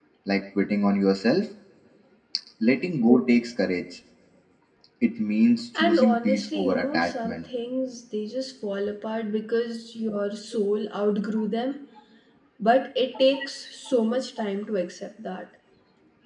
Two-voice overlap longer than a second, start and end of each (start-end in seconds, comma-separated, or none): 5.8-7.4